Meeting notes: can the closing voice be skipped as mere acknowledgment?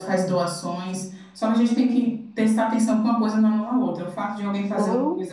Yes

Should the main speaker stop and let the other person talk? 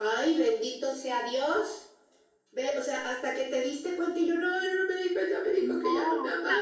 Yes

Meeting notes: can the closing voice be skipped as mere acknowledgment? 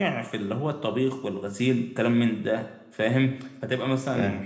Yes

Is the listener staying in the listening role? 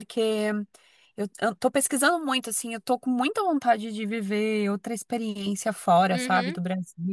Yes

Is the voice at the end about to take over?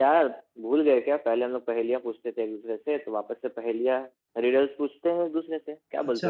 Yes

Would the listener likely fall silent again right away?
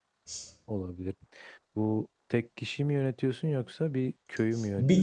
No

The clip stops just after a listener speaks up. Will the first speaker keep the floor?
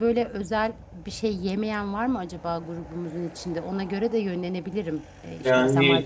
Yes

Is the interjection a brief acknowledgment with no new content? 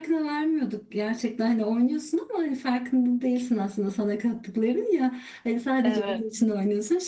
Yes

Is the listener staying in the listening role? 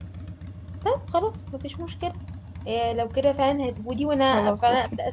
Yes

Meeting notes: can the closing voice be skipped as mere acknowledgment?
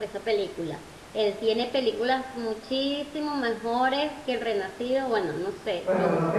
No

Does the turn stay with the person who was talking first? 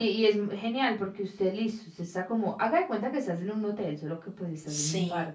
Yes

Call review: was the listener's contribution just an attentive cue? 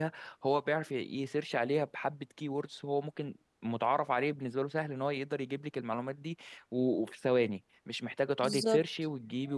Yes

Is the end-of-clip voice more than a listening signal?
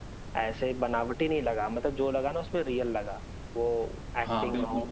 Yes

